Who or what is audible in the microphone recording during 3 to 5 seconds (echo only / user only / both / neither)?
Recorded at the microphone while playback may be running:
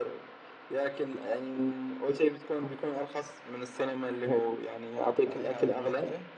echo only